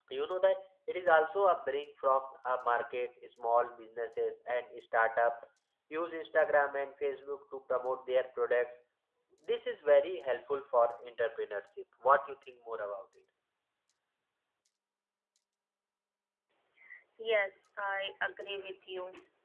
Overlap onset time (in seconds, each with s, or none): none